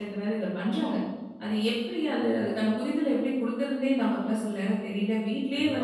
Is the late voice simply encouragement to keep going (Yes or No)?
No